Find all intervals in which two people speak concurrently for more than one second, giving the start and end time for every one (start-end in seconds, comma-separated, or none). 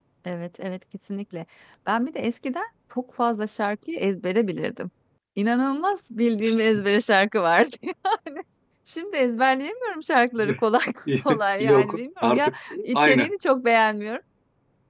11.6-13.3